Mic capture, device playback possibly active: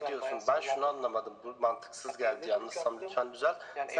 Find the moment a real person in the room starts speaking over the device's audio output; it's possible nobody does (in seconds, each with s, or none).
none